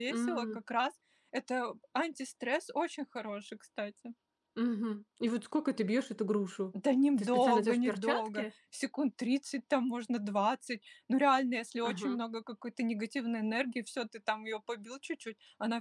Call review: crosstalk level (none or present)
present